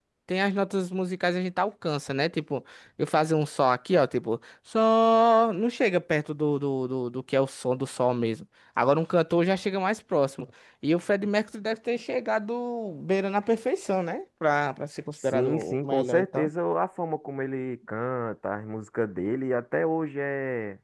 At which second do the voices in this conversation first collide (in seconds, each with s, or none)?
15.2 s